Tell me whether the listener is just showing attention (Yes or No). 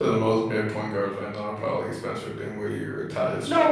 No